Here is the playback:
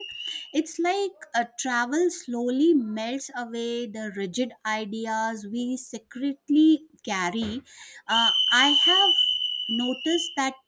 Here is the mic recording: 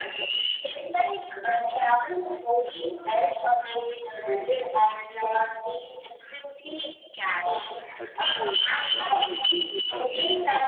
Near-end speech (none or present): present